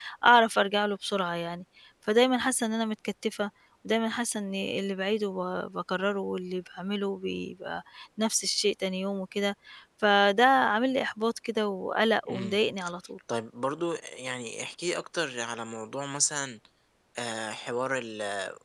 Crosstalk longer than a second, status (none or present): none